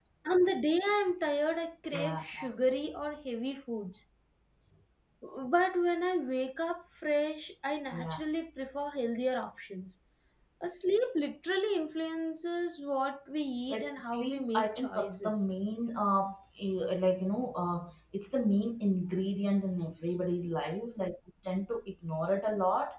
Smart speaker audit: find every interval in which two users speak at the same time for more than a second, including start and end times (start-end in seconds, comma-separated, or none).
13.7-15.4